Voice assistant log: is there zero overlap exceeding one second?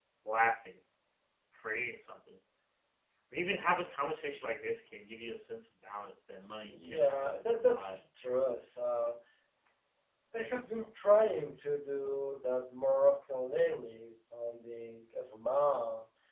No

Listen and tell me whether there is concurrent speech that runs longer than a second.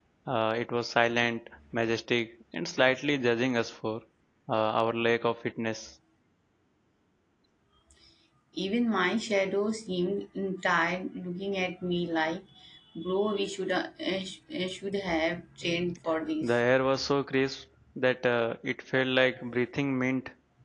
No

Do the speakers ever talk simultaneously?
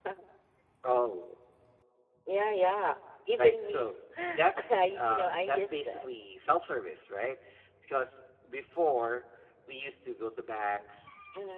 Yes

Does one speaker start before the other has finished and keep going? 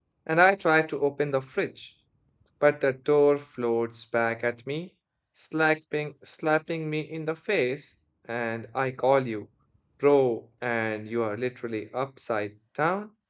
No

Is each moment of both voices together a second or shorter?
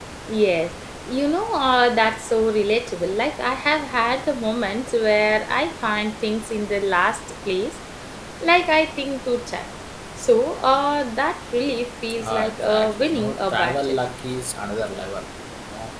No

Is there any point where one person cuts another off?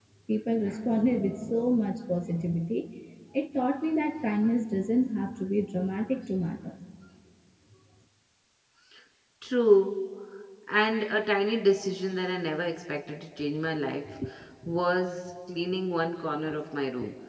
No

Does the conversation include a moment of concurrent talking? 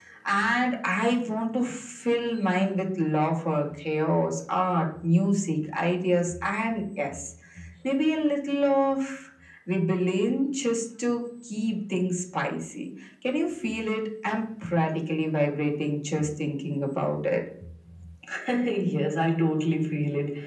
No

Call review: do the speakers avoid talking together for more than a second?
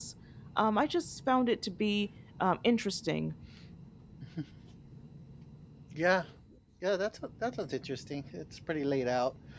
Yes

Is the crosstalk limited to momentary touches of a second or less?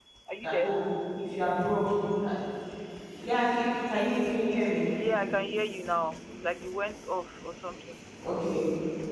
Yes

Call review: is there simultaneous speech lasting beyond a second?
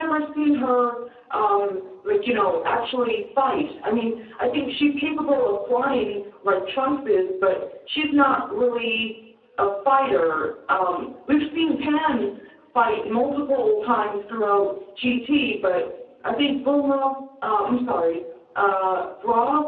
No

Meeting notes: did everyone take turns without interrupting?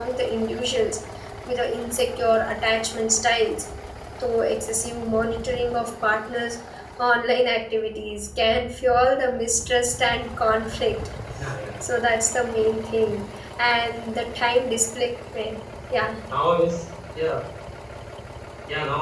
Yes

